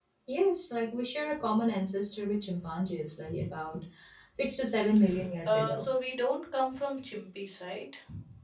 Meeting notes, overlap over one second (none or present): none